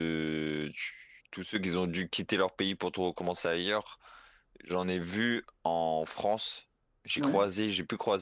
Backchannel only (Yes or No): Yes